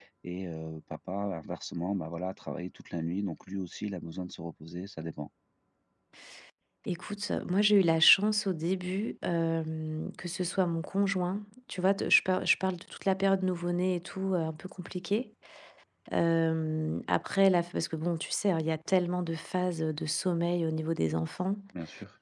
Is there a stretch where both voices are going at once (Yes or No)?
No